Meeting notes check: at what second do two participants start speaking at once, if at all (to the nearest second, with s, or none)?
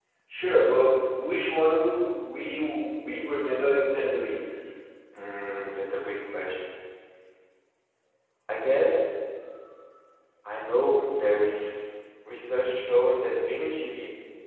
none